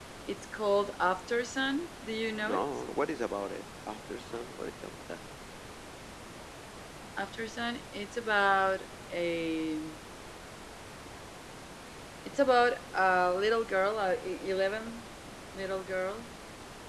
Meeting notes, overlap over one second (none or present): none